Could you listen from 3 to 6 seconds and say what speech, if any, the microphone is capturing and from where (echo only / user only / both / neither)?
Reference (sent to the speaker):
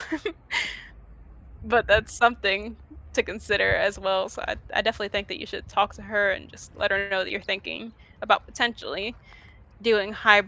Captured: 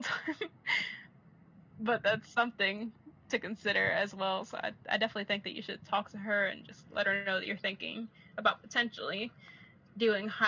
echo only